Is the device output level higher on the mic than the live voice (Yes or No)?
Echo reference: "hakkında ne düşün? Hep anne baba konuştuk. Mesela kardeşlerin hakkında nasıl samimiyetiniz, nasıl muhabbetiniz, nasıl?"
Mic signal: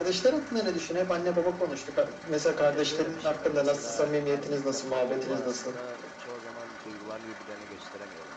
Yes